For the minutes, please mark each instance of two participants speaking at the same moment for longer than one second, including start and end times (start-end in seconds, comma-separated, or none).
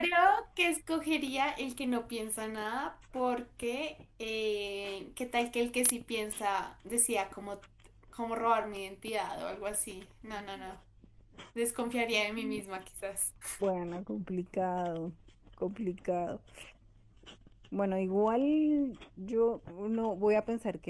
none